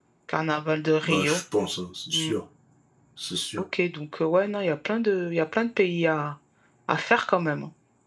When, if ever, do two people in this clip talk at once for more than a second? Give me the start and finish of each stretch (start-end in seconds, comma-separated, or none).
none